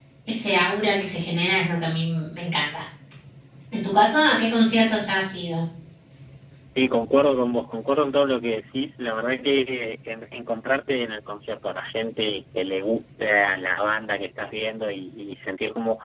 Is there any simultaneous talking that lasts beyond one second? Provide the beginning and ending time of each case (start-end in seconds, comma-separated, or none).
none